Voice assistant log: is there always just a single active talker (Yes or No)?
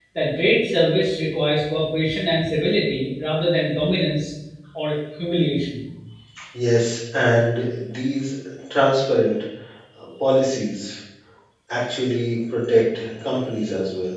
Yes